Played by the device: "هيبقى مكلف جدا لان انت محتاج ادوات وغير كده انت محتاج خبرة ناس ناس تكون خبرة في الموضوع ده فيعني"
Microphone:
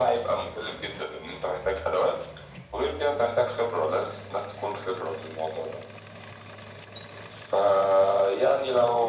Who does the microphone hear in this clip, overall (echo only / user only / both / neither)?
echo only